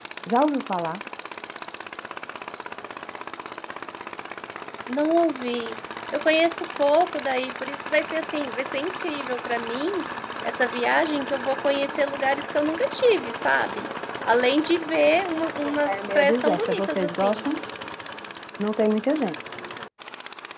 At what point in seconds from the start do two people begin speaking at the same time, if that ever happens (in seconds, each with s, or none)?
15.6 s